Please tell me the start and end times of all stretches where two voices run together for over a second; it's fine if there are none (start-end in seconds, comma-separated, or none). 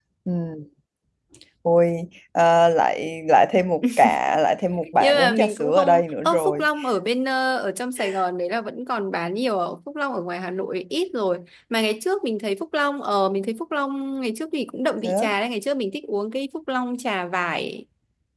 5.0-6.6